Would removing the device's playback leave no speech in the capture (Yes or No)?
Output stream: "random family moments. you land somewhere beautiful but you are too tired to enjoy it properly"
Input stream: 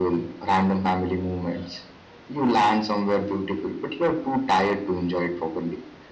Yes